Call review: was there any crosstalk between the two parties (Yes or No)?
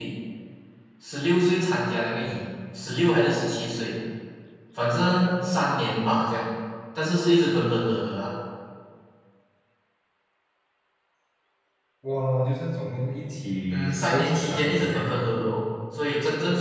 Yes